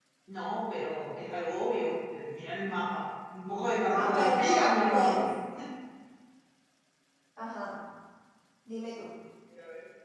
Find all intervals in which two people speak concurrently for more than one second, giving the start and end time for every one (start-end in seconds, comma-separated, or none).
3.9-5.3